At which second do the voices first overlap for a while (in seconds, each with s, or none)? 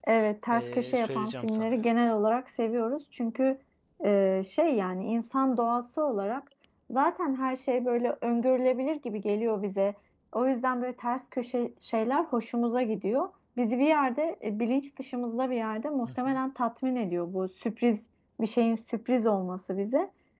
0.5 s